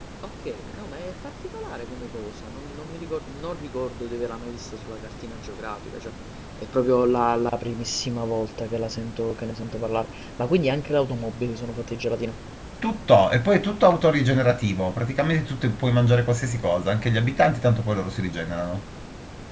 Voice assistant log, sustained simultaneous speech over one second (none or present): none